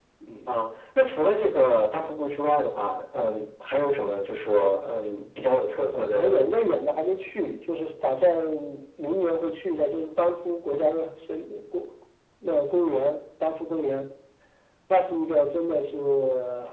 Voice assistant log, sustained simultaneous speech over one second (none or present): none